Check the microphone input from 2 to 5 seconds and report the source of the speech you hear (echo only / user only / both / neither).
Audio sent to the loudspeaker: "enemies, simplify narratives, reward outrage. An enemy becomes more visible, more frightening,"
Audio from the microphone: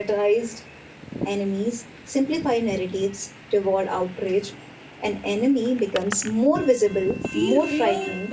echo only